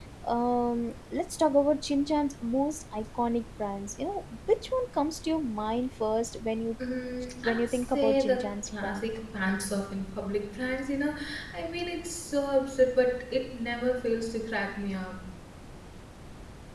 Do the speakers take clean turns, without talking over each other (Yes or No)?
No